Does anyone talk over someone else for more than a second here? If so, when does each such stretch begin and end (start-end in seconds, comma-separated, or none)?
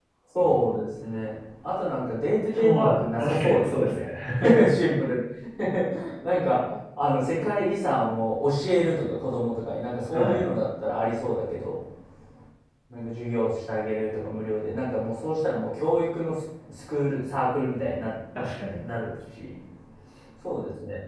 2.5-4.1